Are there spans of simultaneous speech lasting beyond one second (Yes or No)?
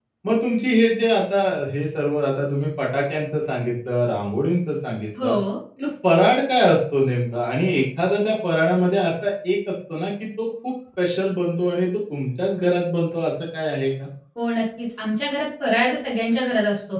No